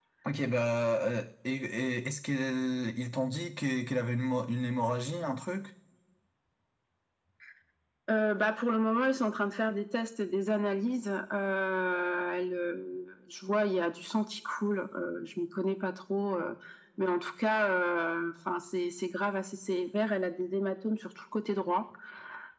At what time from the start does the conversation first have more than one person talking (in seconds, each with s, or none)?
none